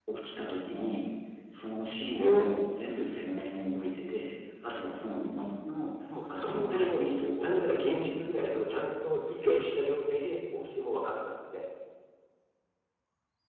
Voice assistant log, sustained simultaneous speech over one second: present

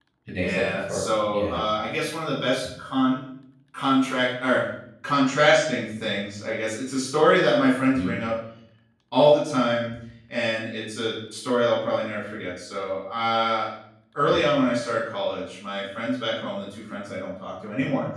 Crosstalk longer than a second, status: present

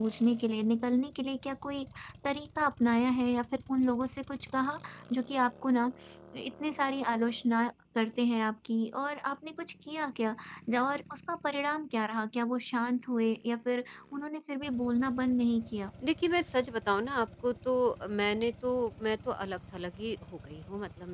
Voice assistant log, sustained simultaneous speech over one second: none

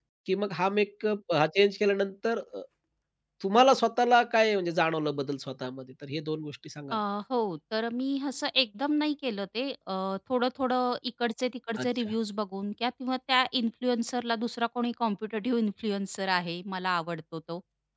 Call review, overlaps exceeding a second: none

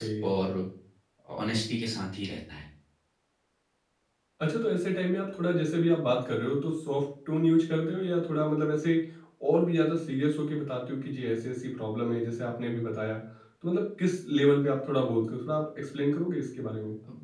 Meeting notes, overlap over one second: none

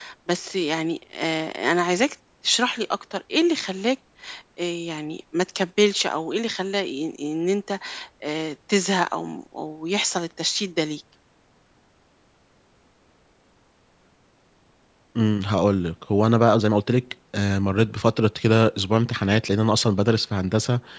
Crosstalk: none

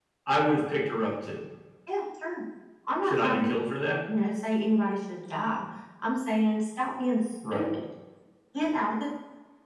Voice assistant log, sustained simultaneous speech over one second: none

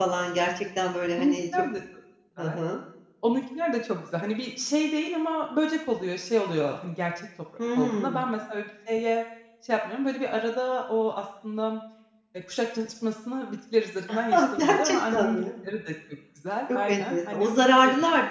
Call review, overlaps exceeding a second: present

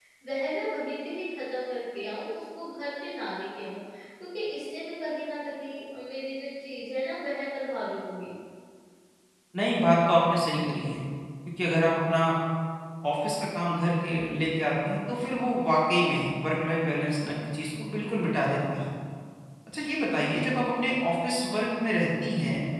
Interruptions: none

